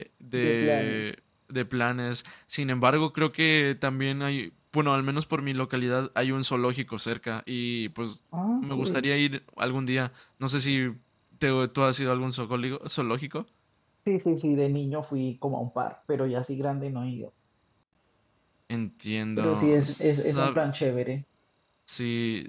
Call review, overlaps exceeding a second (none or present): present